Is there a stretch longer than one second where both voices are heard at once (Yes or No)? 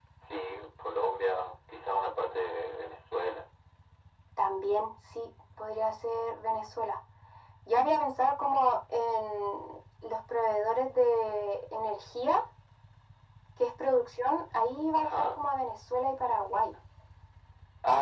No